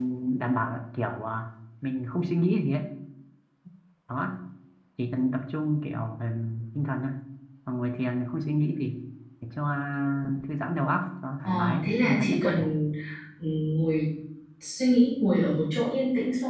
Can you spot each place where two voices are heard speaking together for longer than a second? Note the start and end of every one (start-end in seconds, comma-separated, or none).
11.4-12.7